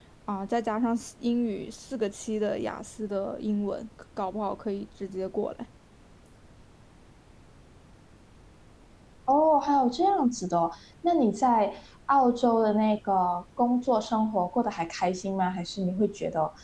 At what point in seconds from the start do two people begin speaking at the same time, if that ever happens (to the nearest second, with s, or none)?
none